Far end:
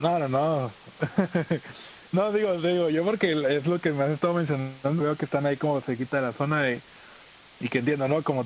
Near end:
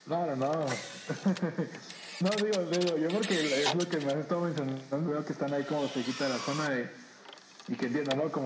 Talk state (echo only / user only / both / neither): echo only